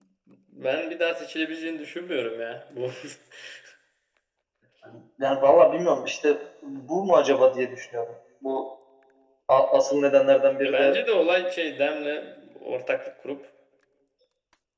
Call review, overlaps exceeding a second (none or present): none